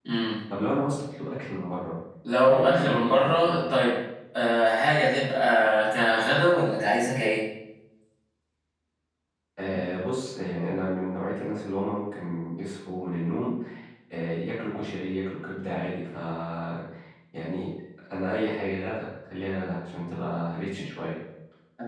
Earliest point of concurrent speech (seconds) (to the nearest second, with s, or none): 2 s